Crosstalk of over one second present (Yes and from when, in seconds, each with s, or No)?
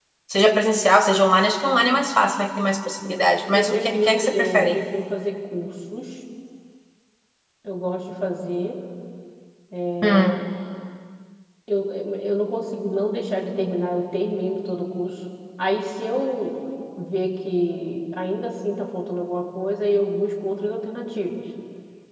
Yes, from 3.5 s